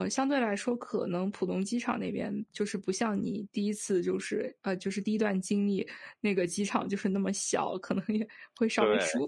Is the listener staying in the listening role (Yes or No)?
Yes